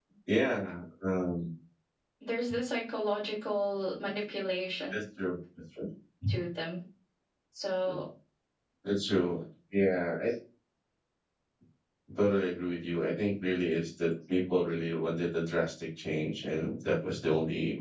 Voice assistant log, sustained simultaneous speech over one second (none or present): none